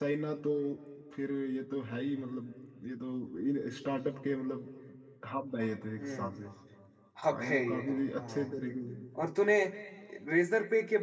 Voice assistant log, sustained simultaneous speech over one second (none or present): present